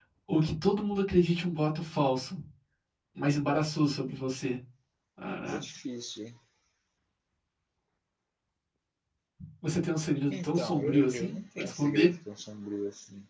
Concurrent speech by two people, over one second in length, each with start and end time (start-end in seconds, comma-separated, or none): 10.3-12.1